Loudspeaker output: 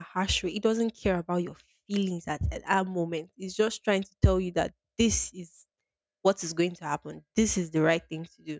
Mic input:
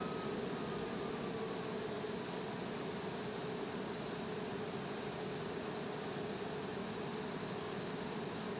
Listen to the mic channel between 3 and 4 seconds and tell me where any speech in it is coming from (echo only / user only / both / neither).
neither